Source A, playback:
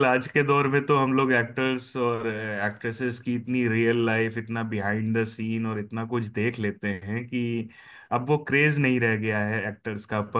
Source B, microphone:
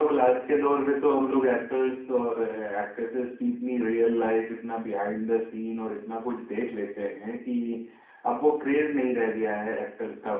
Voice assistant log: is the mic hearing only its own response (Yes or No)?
Yes